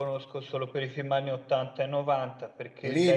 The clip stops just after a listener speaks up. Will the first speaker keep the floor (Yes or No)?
No